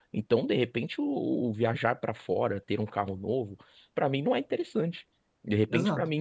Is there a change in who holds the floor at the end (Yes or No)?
No